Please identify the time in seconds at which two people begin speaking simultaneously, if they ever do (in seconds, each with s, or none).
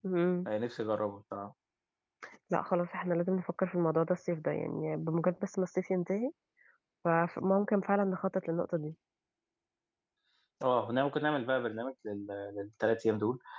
none